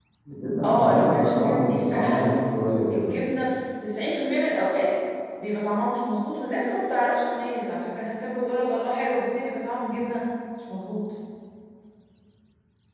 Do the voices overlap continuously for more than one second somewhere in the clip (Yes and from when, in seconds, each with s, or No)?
Yes, from 0.6 s